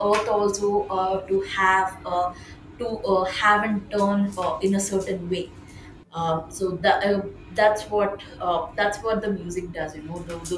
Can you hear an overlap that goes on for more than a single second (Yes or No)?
No